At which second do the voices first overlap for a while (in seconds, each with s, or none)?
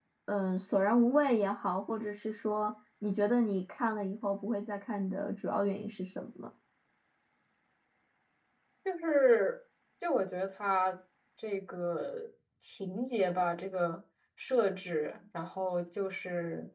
none